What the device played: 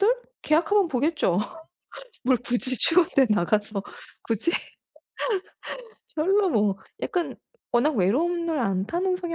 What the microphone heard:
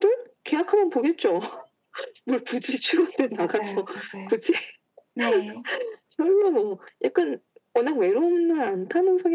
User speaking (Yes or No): Yes